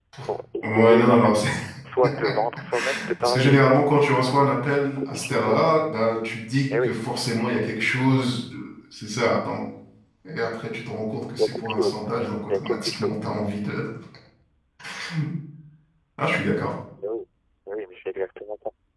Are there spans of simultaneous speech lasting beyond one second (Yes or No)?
Yes